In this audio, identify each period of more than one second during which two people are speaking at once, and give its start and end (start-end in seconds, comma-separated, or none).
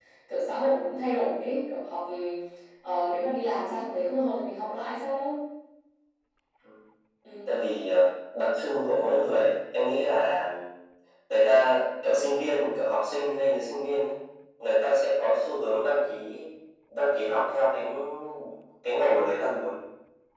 none